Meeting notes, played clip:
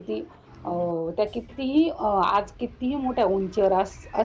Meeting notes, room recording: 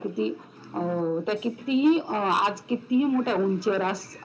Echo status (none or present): present